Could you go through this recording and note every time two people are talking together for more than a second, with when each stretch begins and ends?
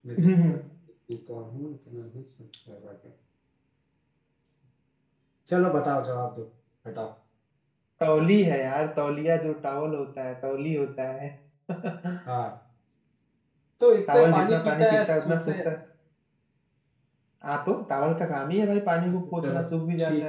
14.1-15.6

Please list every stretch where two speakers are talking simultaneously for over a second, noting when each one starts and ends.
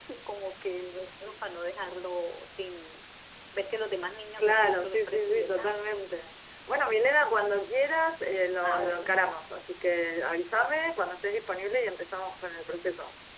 4.4-5.8

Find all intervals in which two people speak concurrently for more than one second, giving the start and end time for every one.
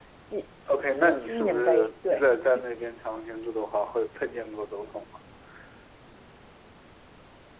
0.7-2.2

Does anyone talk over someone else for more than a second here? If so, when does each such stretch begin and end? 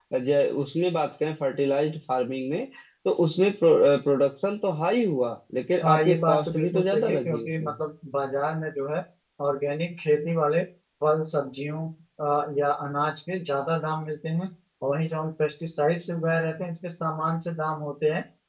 5.8-7.7

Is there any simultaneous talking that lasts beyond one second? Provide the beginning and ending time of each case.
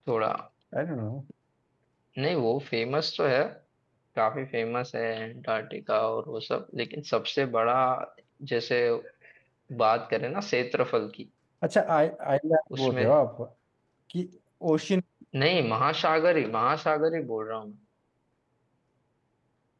none

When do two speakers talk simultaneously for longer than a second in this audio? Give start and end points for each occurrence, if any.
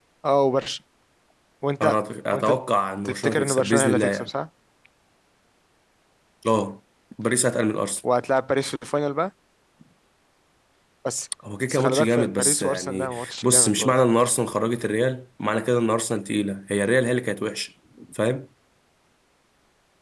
3.0-4.3, 11.7-13.9

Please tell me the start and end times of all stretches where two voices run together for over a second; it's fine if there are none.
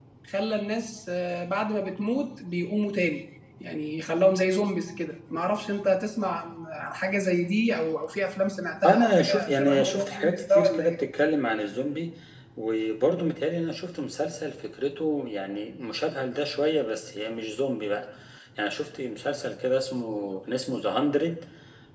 8.8-11.0

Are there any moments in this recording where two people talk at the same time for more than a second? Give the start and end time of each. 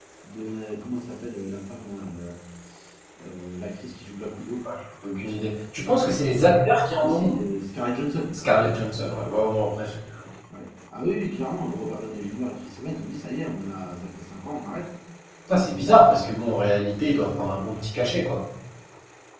none

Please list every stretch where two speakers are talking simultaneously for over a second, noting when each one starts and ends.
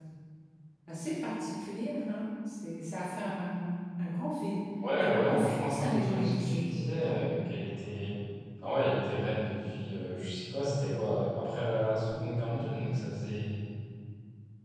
5.0-7.2

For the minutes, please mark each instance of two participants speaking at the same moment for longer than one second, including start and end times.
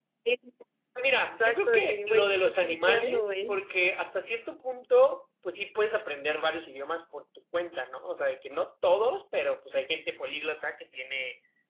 1.3-3.6

